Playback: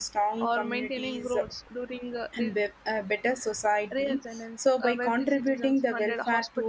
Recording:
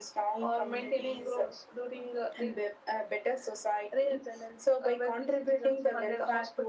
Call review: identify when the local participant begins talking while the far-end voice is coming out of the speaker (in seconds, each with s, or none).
none